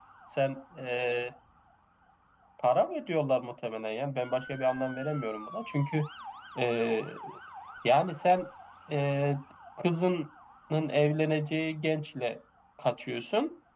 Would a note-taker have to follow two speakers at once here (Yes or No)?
No